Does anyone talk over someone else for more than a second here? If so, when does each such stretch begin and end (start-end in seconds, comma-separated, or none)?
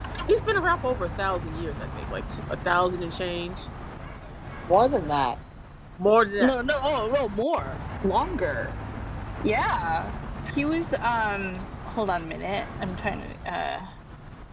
none